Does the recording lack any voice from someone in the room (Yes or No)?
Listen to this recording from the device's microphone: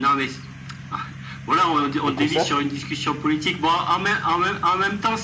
No